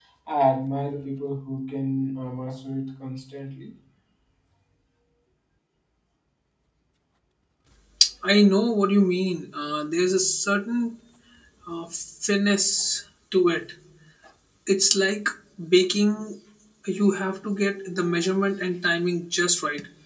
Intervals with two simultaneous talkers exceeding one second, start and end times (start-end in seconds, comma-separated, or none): none